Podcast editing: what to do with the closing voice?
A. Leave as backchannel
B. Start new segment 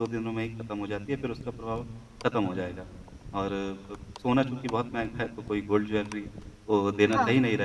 A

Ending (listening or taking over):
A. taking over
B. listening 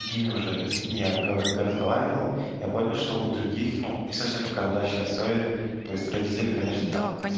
A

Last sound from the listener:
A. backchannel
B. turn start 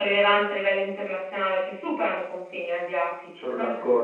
A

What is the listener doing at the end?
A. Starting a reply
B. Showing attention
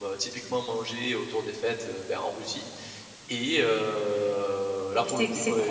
A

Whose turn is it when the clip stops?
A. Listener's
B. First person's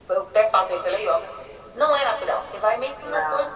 B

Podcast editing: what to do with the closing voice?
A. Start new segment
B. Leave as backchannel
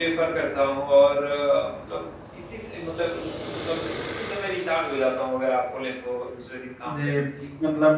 A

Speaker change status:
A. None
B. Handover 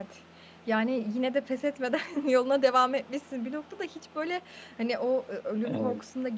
A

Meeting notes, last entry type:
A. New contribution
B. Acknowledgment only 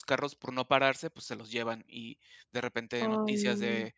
B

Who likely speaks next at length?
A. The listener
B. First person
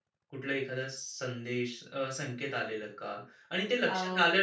B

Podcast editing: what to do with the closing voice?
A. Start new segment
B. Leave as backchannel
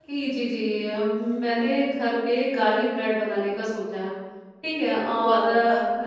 B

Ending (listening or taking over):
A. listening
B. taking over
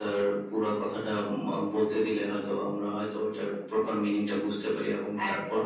B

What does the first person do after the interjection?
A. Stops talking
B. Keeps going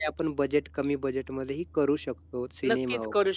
A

